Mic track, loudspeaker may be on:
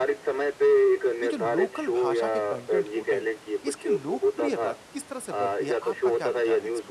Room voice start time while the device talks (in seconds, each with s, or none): 1.2 s